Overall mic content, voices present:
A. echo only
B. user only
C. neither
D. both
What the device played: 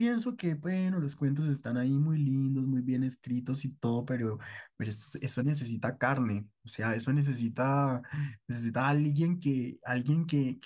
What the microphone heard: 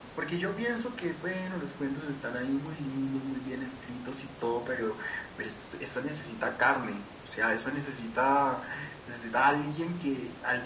A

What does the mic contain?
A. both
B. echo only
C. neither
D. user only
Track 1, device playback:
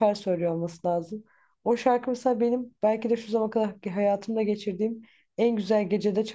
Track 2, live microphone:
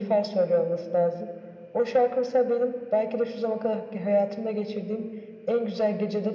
B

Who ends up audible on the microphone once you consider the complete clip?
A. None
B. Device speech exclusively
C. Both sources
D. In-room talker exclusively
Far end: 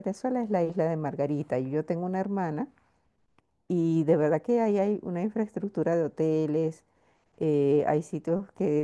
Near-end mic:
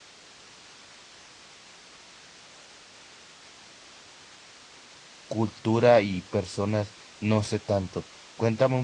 D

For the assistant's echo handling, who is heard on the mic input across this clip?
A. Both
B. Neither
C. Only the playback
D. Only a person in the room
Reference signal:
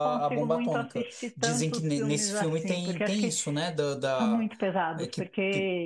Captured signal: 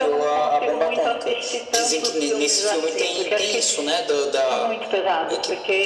C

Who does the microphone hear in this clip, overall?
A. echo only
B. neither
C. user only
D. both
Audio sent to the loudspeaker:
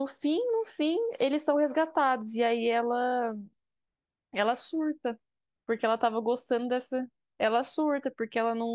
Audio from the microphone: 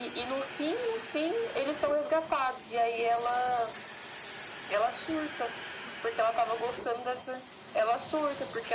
A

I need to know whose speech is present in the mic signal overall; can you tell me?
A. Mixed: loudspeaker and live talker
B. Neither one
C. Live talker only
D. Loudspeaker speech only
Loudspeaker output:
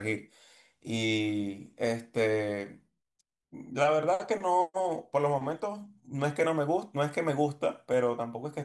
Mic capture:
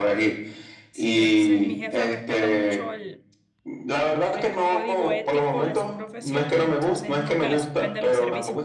A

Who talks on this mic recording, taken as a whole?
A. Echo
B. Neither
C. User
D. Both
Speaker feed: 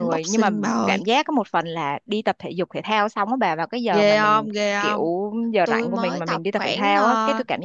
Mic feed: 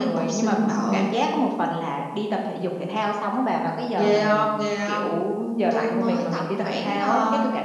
A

